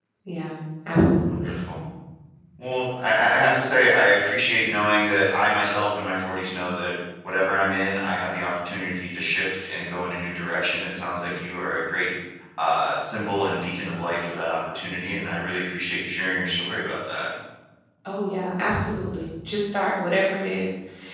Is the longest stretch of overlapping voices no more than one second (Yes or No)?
Yes